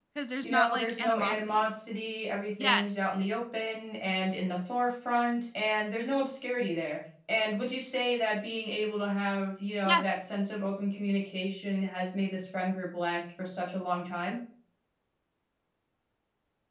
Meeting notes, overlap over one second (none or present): present